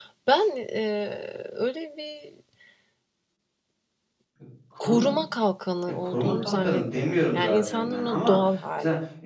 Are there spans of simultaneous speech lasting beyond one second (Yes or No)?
Yes